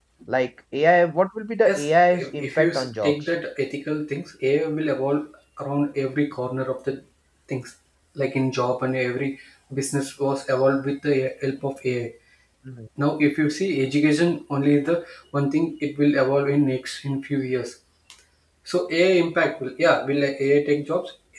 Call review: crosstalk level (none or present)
present